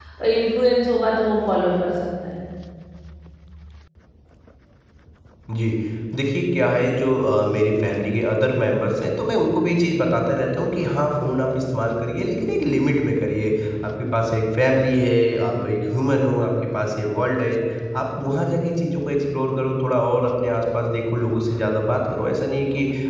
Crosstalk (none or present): none